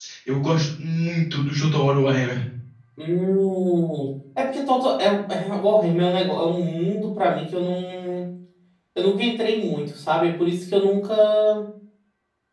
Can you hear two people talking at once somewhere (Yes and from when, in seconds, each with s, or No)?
No